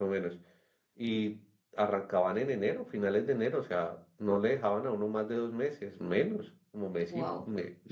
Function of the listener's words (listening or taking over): listening